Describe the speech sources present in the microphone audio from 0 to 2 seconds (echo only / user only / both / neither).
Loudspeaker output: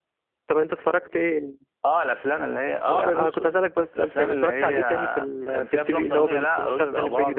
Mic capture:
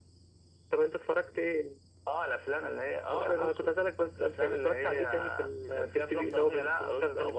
echo only